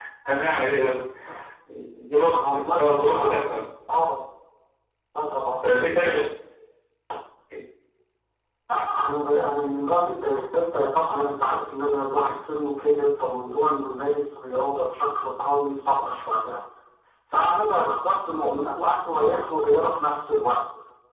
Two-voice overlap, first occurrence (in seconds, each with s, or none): 2.3 s